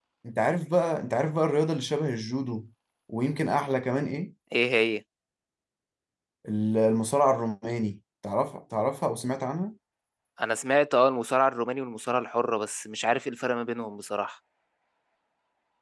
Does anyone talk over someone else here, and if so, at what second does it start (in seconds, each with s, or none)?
none